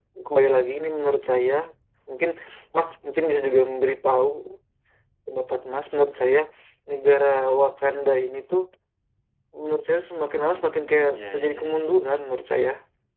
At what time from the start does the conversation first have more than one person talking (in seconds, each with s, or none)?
10.6 s